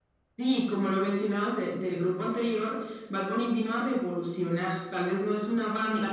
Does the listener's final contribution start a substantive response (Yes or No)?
No